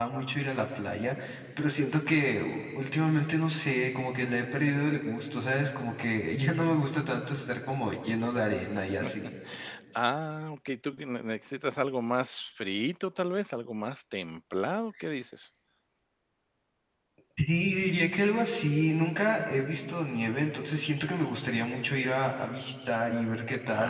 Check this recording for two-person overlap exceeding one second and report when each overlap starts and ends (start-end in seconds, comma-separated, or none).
none